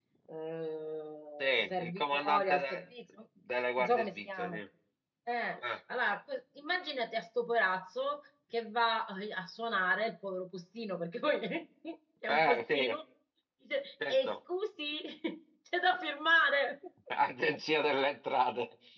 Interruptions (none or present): present